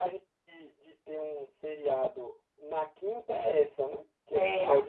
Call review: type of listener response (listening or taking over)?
listening